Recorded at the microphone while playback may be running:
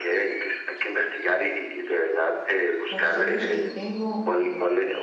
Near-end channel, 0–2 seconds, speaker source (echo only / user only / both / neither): echo only